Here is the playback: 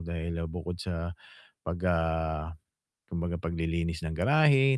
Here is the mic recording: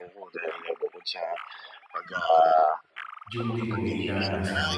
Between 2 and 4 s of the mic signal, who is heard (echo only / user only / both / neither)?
both